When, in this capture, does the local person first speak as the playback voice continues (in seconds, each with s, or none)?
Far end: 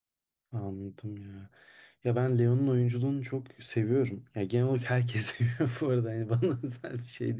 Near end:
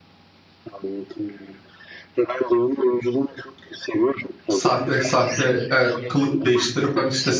4.5 s